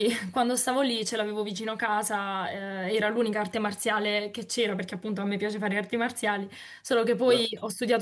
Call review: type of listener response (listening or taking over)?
listening